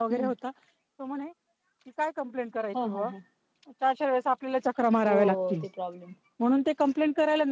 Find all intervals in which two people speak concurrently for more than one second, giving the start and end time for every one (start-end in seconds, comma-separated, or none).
none